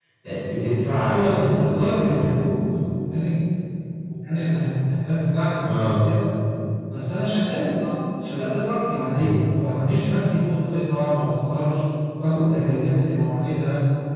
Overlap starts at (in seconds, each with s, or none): 0.9 s